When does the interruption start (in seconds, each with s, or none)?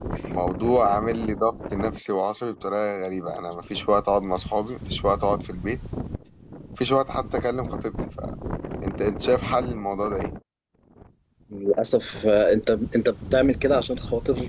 none